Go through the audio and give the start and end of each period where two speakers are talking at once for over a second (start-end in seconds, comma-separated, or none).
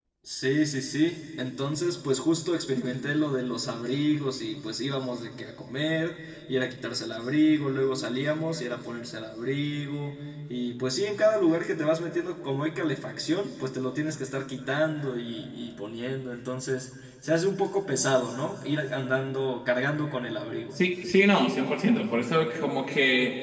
none